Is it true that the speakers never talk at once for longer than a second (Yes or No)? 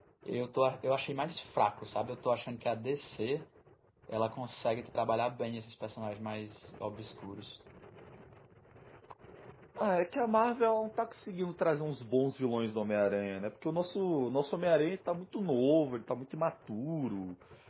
Yes